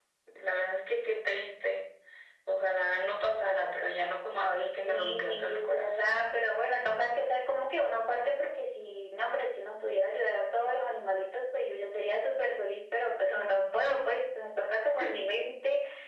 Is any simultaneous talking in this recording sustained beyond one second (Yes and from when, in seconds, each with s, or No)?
Yes, from 4.4 s